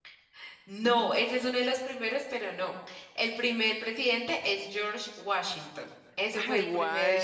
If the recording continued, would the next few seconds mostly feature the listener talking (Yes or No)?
Yes